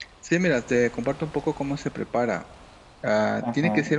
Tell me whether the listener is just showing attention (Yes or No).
Yes